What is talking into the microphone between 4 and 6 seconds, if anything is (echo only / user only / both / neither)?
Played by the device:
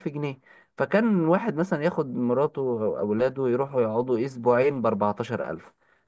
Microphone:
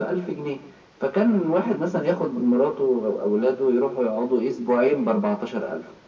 echo only